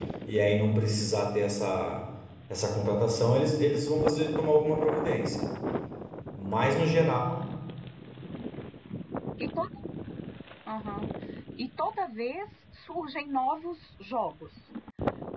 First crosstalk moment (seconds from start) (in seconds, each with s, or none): none